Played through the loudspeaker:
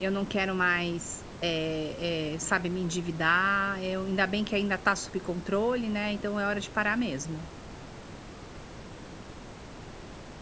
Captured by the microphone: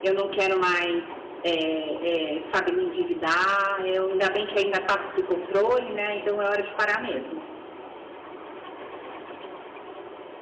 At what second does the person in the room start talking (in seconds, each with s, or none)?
none